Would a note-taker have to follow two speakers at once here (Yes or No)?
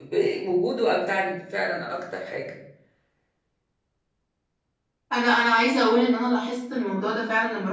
No